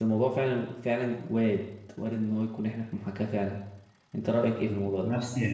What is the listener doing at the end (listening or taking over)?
taking over